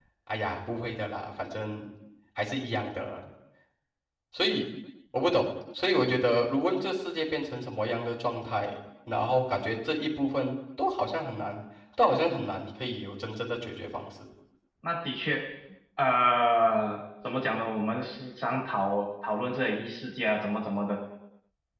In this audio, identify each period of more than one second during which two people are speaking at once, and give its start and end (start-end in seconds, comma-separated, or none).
none